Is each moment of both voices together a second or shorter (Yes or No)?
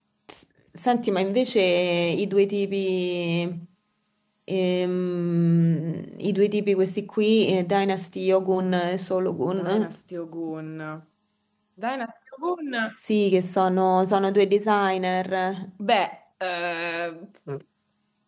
Yes